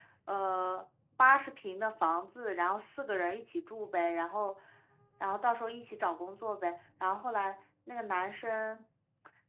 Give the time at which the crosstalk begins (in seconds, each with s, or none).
none